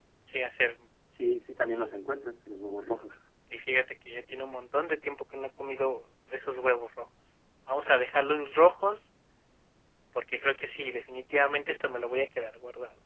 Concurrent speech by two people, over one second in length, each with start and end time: none

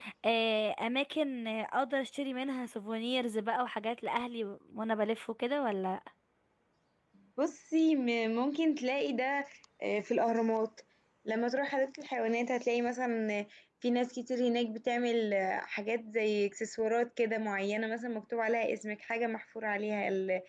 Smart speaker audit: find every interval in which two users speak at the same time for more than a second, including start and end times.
none

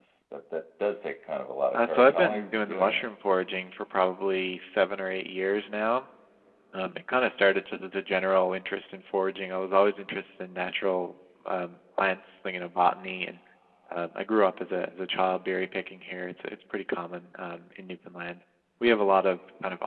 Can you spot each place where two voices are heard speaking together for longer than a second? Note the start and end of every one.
1.7-3.0

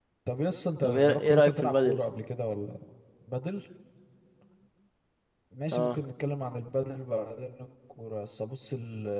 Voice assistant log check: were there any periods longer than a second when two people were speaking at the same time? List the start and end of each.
0.8-2.0

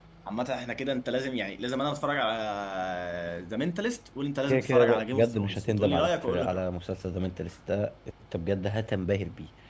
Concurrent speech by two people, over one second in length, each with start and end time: 4.5-6.6

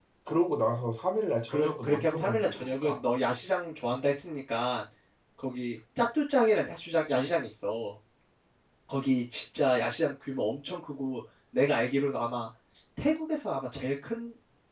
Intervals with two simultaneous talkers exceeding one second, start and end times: 1.5-3.0

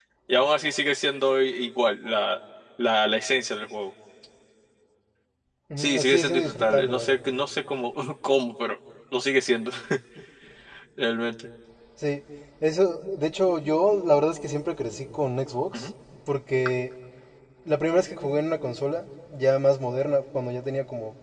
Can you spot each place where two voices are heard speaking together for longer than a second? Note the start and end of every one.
5.8-7.2

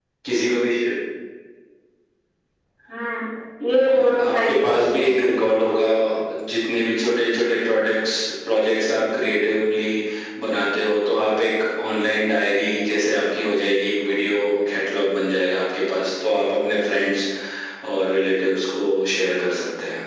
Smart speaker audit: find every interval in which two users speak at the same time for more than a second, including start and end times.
3.9-5.1

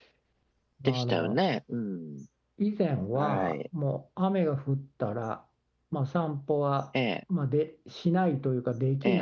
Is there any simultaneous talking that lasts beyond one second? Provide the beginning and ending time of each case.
none

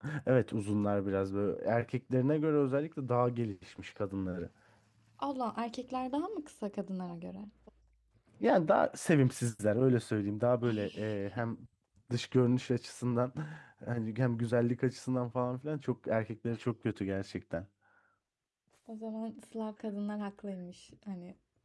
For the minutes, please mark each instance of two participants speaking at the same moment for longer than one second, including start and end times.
none

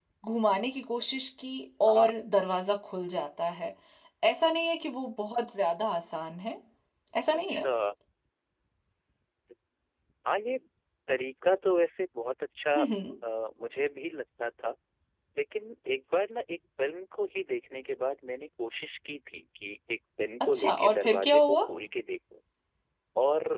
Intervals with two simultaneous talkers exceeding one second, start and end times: 20.4-21.6

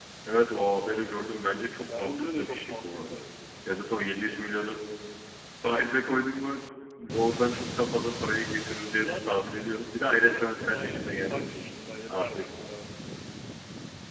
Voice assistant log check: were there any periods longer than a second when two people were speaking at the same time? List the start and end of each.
2.0-3.2, 10.0-11.6

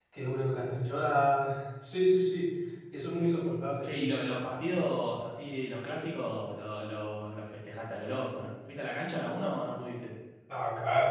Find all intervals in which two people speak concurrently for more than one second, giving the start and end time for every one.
none

